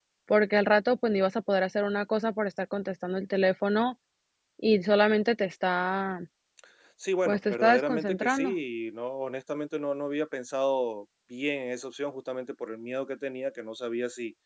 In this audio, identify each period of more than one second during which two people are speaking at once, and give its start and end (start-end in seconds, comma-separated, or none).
7.3-8.6